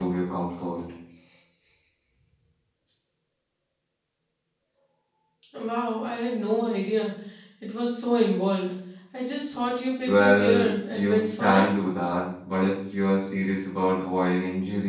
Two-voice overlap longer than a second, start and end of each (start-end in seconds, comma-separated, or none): 10.1-11.7